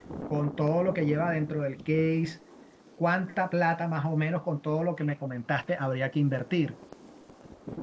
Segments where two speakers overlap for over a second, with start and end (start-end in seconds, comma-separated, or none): none